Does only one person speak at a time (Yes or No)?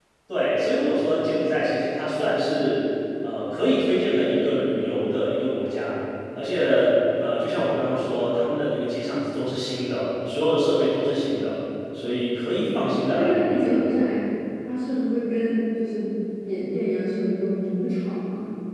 No